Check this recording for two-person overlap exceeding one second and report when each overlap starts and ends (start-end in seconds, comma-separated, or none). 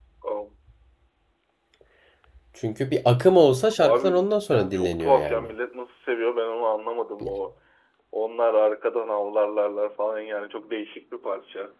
3.8-5.5